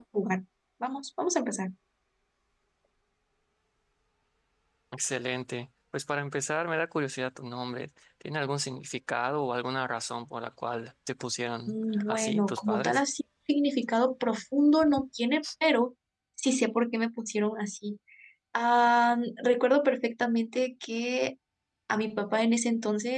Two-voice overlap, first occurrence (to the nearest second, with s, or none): 12 s